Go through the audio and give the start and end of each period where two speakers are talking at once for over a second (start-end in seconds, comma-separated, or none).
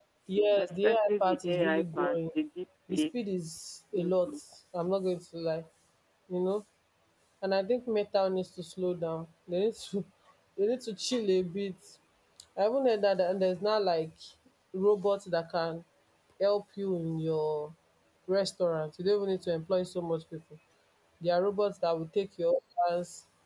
0.6-2.2